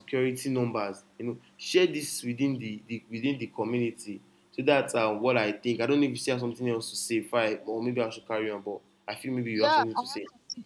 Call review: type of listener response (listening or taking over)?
taking over